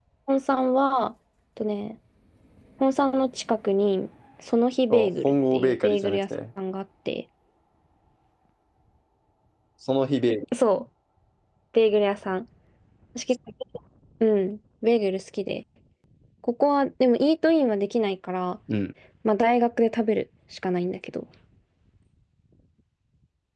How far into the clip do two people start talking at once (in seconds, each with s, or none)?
4.9 s